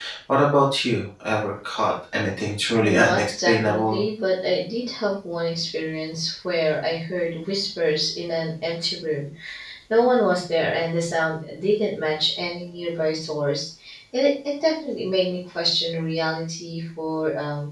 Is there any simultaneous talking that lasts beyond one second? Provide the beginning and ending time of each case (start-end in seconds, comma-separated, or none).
2.8-4.0